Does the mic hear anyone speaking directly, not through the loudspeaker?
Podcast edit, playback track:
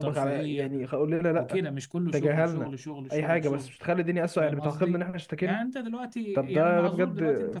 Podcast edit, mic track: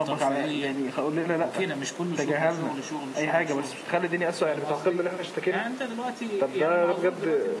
No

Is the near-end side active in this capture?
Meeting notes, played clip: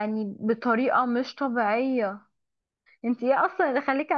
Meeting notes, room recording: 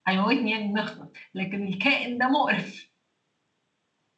Yes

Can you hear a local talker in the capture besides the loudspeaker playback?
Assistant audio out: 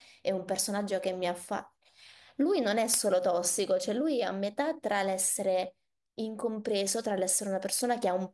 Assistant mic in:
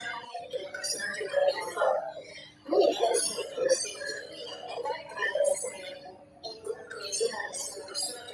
No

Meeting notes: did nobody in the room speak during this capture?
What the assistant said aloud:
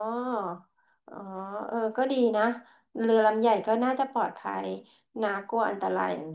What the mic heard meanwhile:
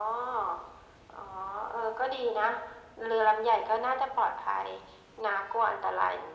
Yes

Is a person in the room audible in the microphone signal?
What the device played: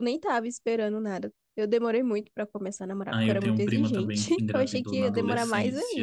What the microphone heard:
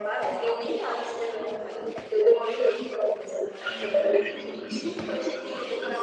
No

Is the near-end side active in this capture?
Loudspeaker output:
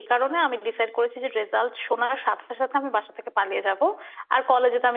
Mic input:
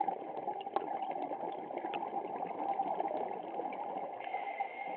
No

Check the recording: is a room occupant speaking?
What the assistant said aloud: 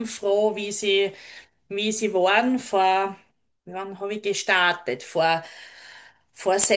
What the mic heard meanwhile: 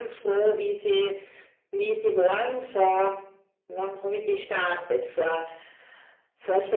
No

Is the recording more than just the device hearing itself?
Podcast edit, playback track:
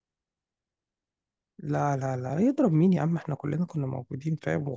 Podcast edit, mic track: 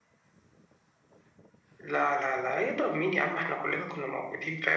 No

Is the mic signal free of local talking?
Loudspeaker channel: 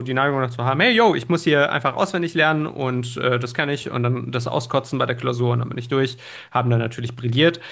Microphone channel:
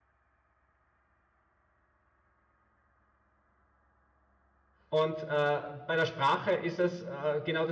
No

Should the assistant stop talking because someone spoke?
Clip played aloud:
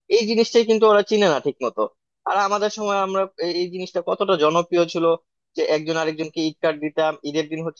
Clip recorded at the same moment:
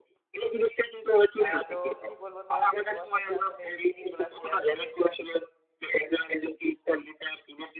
Yes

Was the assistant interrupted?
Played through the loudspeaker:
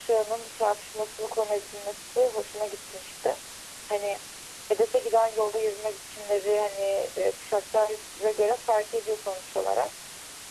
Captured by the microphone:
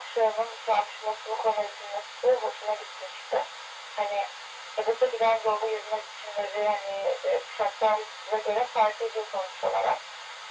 No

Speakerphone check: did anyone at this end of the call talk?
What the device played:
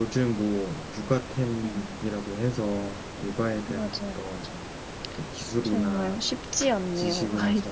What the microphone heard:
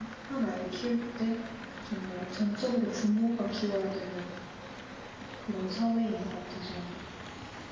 Yes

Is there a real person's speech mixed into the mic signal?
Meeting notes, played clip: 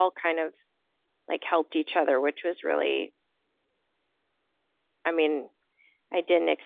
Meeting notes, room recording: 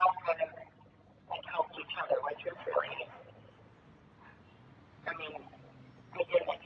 No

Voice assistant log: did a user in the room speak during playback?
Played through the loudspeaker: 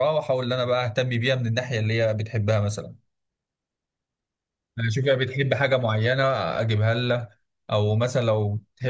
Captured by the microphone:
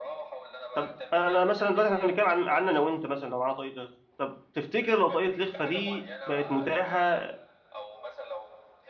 Yes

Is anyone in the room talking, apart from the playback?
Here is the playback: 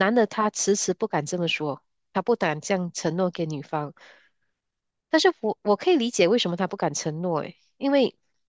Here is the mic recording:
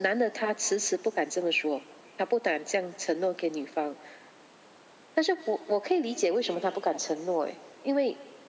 No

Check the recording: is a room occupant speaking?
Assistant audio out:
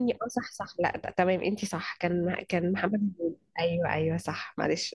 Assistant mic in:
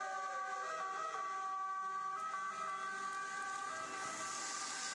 No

